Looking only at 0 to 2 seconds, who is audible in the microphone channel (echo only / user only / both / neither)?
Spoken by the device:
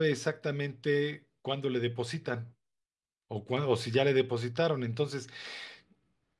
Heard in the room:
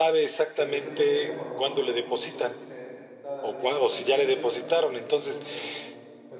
both